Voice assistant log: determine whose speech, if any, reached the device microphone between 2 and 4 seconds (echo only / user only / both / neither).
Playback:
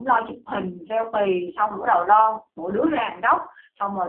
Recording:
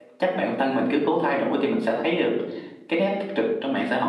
user only